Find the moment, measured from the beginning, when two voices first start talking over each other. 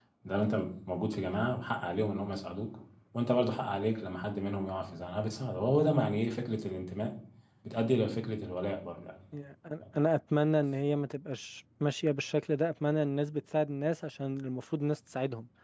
none

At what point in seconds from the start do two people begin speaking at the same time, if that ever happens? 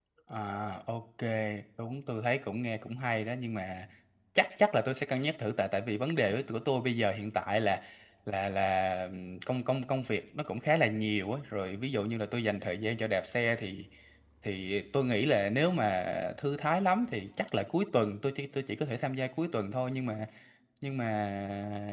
none

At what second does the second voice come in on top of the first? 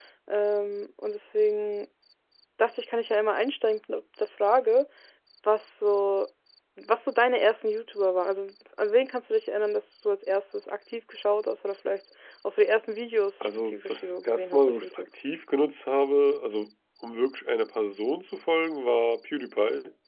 13.4 s

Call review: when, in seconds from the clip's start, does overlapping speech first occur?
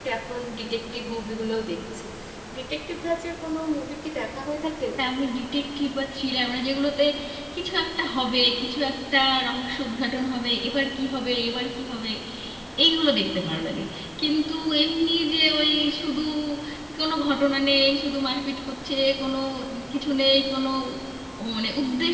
none

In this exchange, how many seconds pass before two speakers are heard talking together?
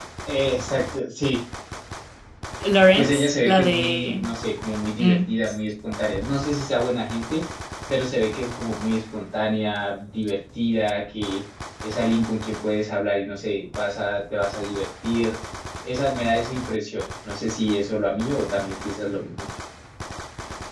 2.9 s

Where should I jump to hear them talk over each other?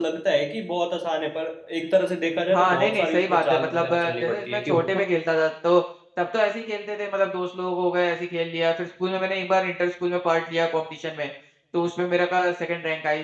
2.5 s

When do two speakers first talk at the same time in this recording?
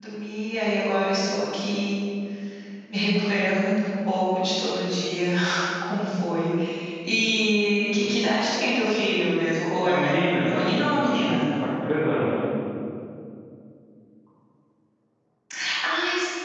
9.8 s

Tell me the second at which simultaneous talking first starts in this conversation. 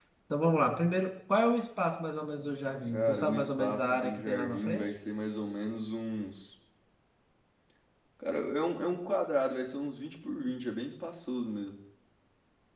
2.9 s

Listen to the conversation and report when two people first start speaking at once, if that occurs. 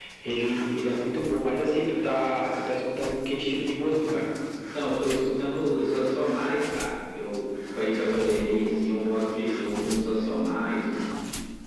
none

